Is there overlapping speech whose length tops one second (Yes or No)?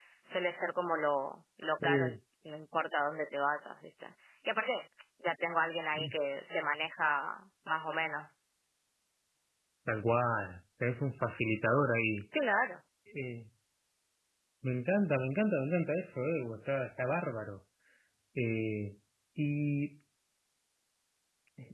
No